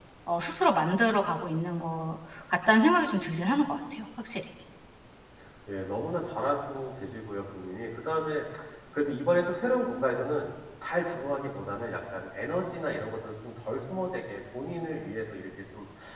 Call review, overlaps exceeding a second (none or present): none